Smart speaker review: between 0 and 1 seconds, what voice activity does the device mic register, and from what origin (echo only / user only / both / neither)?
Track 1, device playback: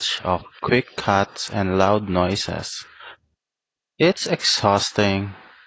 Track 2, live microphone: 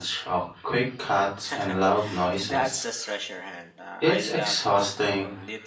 echo only